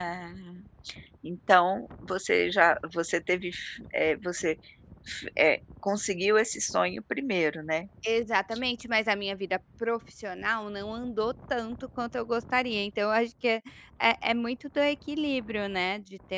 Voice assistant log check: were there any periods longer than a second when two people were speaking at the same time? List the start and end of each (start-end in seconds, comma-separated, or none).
none